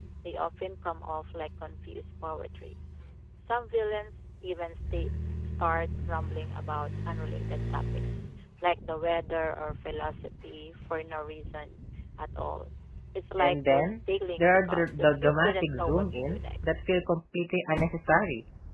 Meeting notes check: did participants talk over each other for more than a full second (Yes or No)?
Yes